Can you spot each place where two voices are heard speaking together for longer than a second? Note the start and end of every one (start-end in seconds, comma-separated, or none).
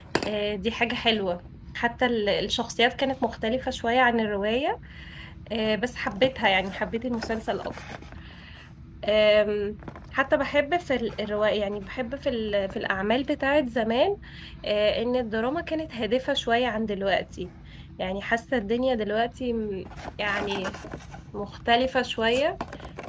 none